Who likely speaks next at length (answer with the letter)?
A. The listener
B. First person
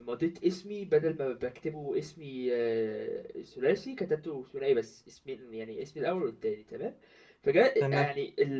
B